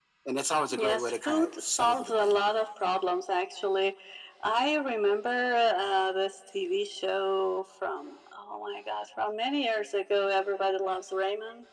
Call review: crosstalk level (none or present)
present